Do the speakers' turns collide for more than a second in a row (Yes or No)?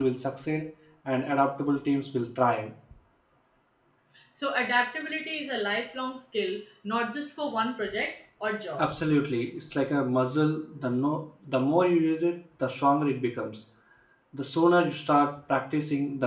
No